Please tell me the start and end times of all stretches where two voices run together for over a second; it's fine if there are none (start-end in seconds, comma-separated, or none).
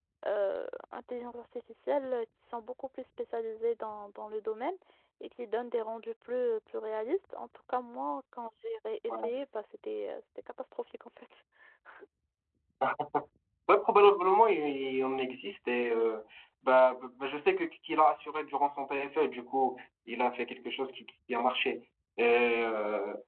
none